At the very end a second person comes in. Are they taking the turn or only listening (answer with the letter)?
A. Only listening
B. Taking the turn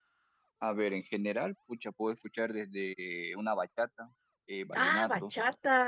B